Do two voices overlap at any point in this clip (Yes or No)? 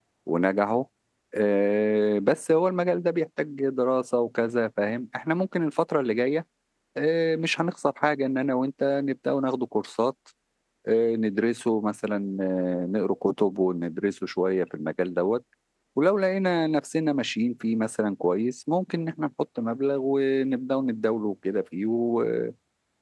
No